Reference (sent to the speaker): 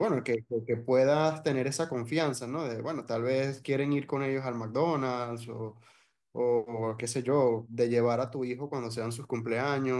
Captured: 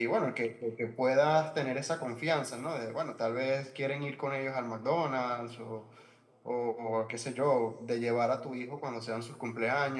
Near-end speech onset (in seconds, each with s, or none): none